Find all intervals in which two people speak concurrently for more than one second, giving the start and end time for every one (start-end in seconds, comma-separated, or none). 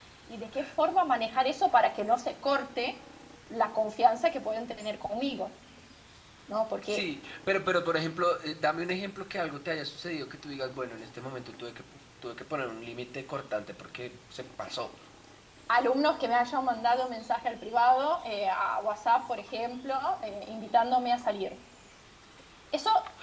none